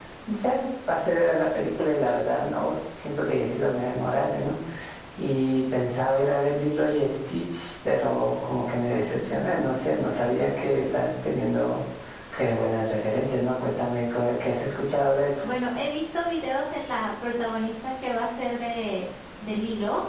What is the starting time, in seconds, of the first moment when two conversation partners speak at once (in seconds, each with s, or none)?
none